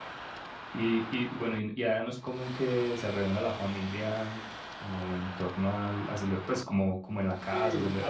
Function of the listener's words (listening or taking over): taking over